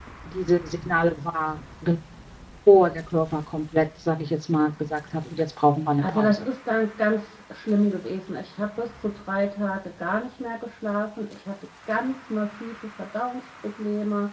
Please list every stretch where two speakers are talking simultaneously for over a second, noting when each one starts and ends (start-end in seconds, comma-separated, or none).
none